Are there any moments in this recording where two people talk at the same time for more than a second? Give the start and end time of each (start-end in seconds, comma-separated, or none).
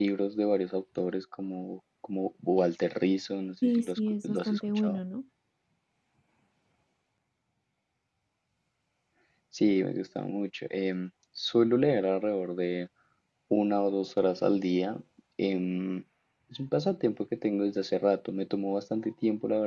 3.6-5.0